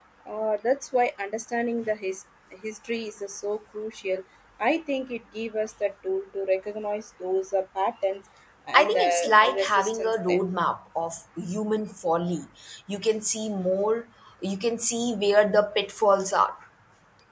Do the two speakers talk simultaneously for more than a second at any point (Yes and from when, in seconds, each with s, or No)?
Yes, from 8.7 s